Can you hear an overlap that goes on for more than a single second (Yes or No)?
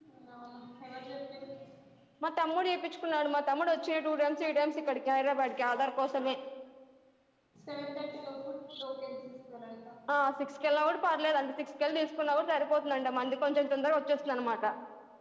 No